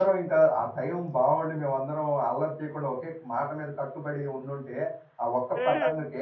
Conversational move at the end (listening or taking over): listening